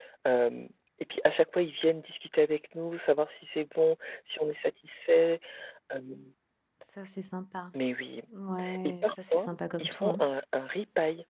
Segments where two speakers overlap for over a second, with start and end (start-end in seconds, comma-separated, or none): 8.8-10.2